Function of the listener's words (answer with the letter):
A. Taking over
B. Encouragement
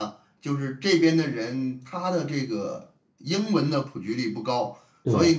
B